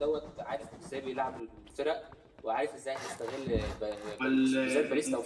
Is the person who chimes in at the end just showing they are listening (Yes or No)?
Yes